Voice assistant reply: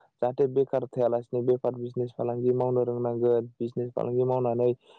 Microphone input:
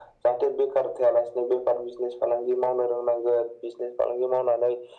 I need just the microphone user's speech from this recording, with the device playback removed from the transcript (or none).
none